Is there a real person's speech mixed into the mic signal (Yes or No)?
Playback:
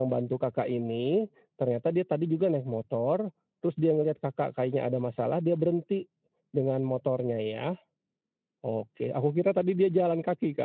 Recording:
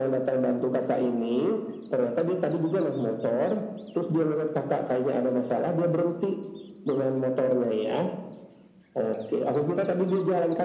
No